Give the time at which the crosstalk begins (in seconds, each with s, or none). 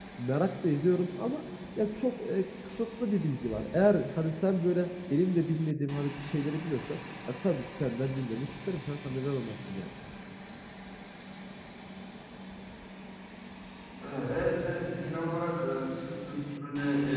none